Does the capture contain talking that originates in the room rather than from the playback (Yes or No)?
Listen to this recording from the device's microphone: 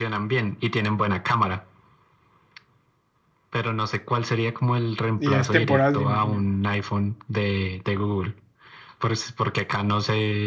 Yes